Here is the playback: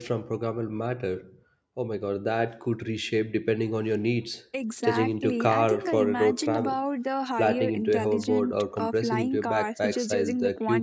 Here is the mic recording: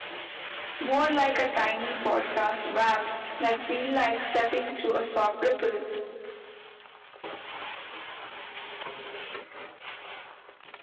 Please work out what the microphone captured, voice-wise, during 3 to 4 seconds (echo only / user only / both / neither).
user only